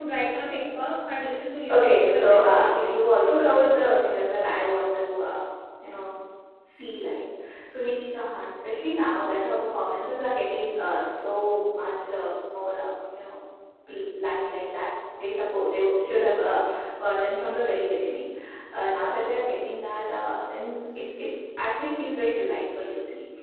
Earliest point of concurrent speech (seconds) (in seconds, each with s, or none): 1.7 s